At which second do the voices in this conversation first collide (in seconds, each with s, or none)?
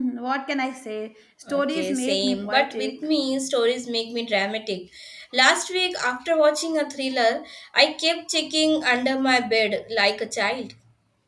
1.5 s